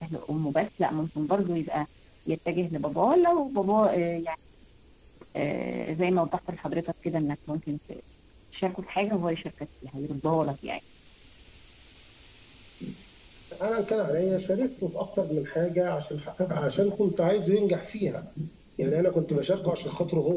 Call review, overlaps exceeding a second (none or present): none